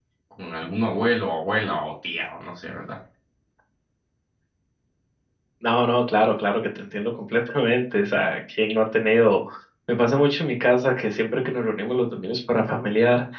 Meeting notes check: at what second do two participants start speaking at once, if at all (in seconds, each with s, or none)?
none